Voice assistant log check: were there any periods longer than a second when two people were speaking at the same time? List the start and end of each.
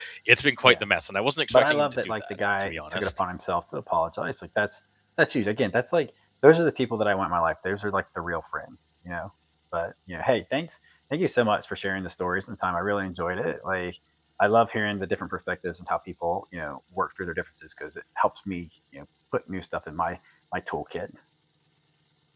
1.5-3.2

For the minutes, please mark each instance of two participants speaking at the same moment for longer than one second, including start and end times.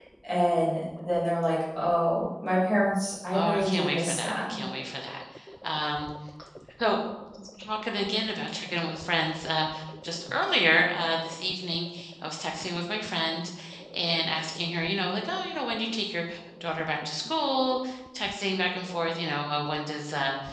3.3-4.6

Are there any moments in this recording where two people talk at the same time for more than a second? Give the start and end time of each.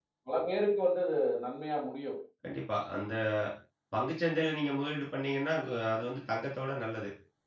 none

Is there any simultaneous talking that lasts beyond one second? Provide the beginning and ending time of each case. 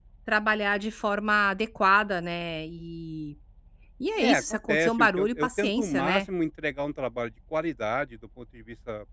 4.2-6.2

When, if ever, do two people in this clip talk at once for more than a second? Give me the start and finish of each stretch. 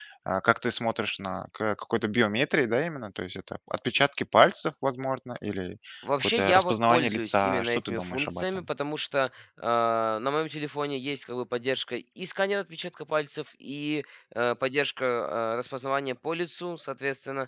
6.2-8.6

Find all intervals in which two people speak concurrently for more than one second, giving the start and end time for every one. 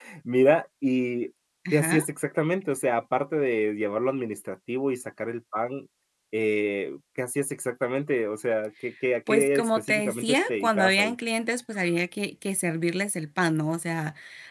9.3-11.1

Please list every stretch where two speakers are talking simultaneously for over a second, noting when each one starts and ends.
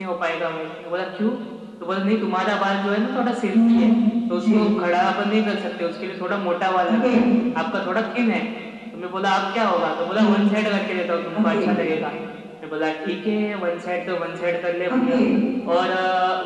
none

